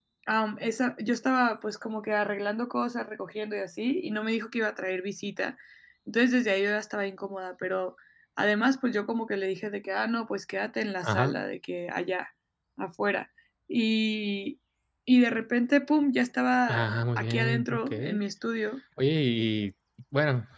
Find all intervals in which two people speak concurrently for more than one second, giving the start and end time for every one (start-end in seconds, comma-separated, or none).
16.7-18.2